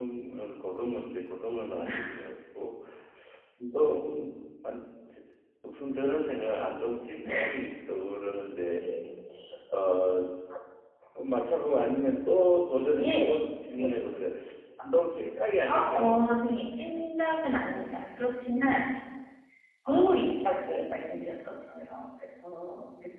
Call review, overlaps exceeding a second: none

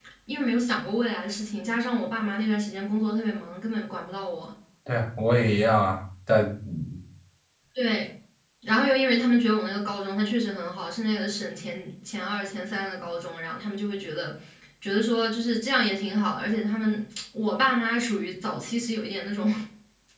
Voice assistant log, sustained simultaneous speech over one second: none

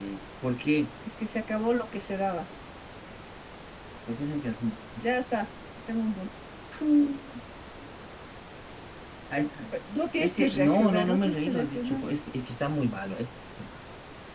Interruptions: present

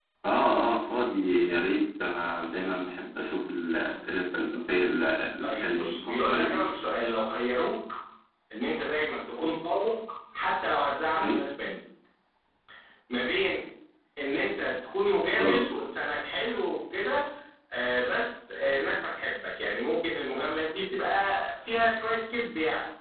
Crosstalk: present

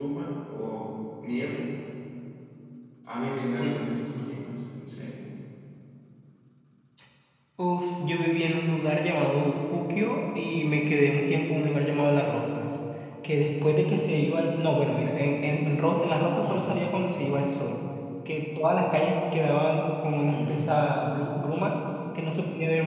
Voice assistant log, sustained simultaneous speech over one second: none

